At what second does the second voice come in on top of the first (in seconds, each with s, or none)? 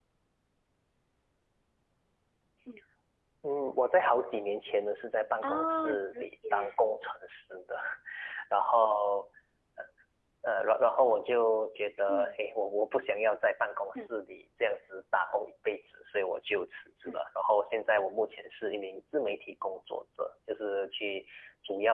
5.4 s